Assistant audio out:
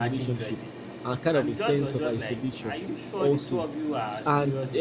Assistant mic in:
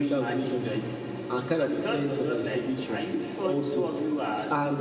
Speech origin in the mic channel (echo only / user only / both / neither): echo only